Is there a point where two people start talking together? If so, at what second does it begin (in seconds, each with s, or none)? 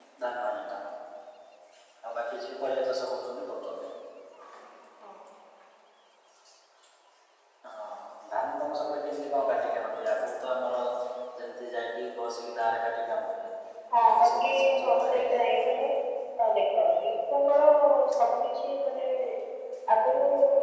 13.9 s